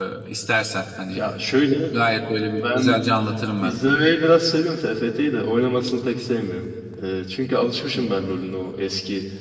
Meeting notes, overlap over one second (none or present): none